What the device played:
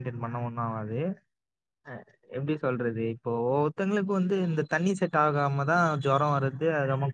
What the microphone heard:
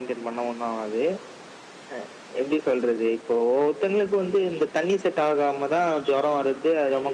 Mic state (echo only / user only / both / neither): echo only